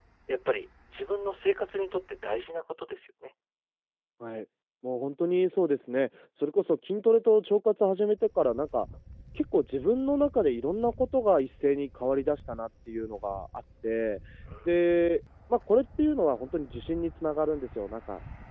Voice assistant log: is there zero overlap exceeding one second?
Yes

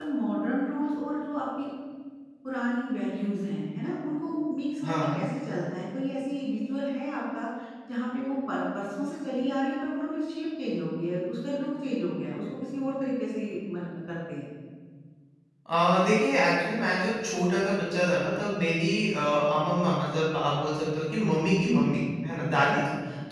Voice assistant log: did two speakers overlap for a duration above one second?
No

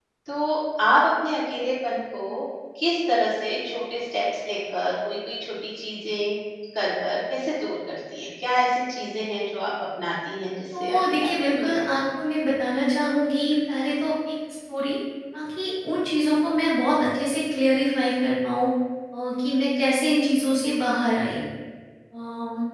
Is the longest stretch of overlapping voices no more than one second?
No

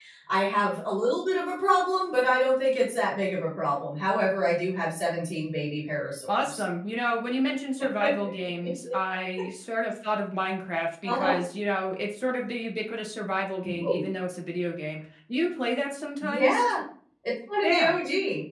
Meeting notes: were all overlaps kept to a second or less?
Yes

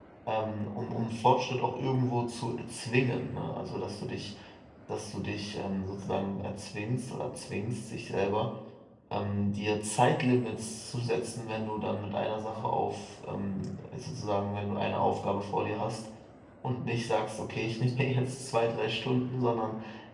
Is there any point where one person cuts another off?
No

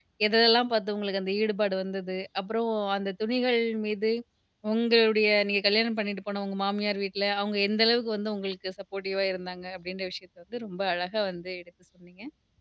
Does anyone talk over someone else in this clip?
No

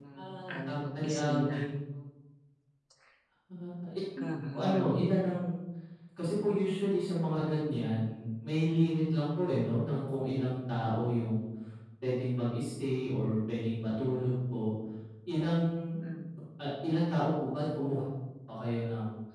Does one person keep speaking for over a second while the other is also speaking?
Yes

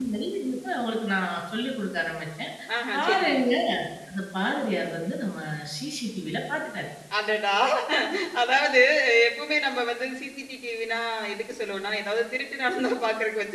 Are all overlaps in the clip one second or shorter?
Yes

